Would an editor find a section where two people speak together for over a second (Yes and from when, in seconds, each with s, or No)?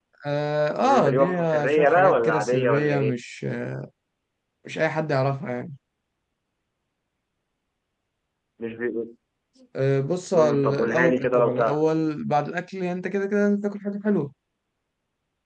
Yes, from 0.8 s